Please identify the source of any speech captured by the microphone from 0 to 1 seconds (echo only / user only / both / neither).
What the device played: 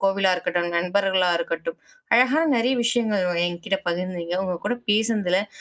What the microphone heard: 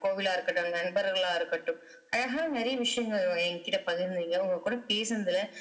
echo only